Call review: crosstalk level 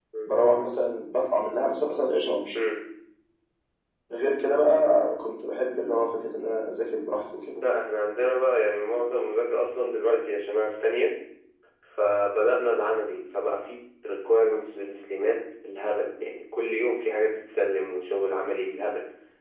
none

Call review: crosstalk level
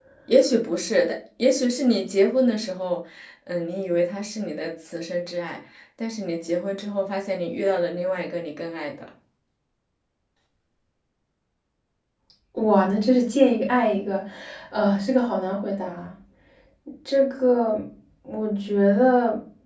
none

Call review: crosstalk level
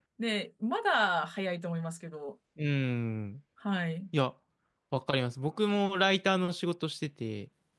none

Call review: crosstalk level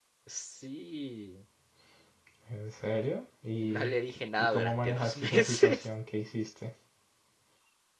present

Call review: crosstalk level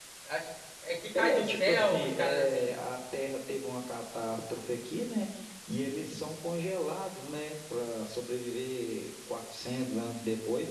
present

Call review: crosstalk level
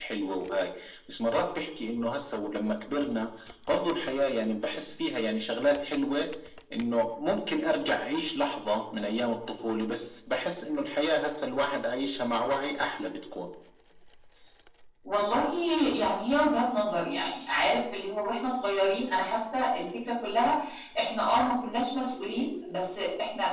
none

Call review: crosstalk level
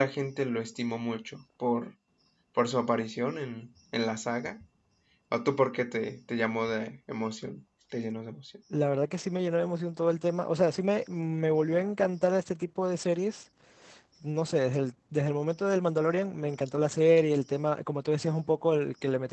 none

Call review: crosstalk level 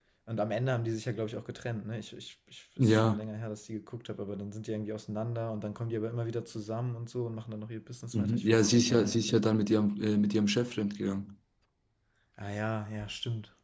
present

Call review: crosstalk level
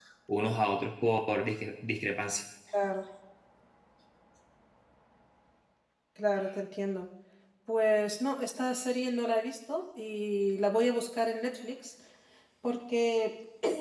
none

